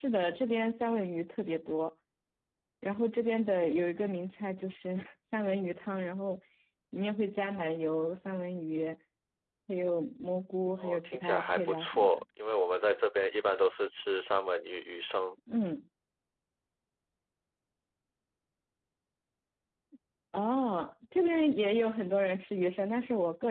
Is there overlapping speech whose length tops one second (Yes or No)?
Yes